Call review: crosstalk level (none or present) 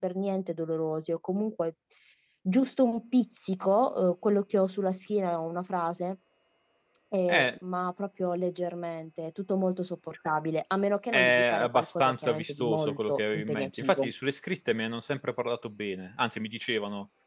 present